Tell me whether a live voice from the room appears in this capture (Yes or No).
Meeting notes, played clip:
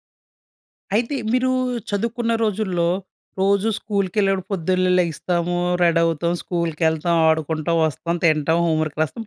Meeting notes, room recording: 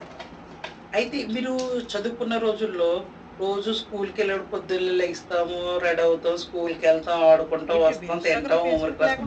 Yes